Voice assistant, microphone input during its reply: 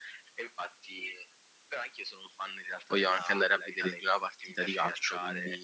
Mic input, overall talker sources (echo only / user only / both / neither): both